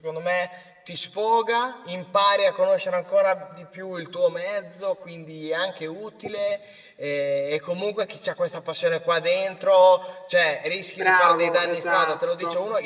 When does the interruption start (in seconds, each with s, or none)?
11.0 s